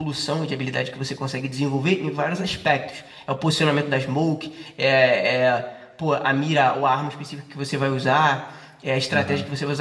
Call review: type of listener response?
listening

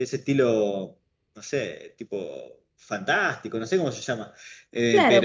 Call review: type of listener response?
taking over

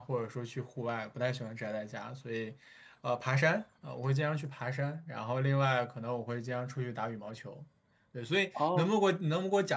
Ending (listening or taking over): listening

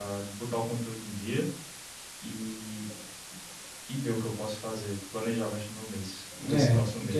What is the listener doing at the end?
taking over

